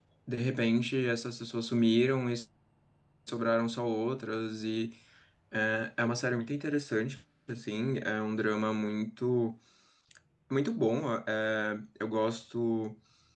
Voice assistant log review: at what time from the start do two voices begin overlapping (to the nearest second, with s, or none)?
none